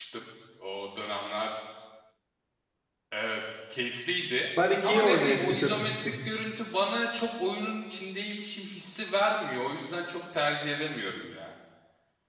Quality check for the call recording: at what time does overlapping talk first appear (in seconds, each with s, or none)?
4.6 s